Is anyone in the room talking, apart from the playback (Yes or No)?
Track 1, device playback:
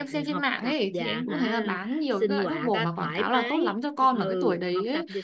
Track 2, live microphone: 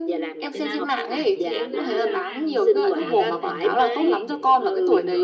Yes